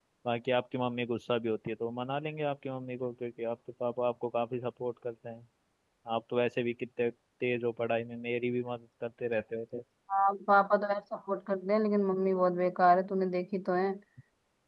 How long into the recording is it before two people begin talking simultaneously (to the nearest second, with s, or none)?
none